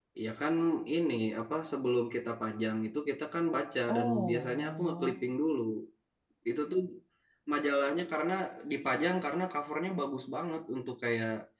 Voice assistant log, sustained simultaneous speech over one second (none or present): present